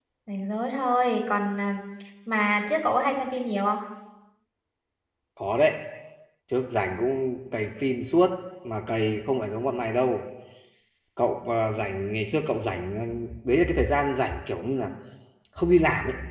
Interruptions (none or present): none